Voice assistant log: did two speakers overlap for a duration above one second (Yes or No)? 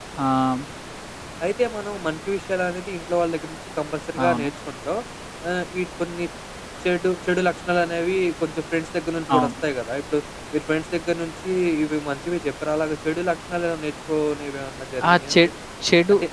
No